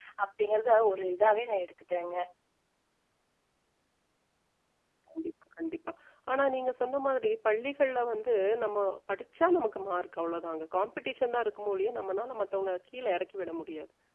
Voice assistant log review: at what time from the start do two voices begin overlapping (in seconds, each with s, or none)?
none